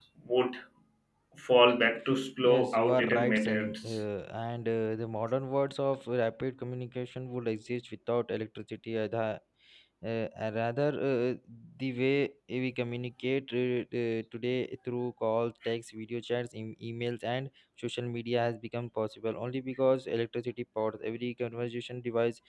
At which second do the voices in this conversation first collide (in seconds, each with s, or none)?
2.4 s